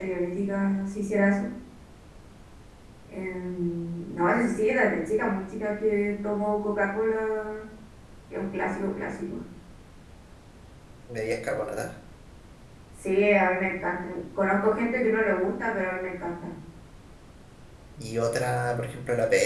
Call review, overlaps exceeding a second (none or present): none